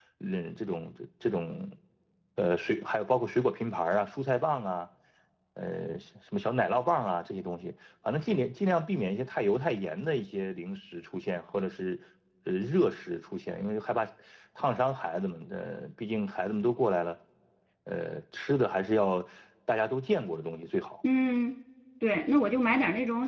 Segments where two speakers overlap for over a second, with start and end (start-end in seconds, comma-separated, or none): none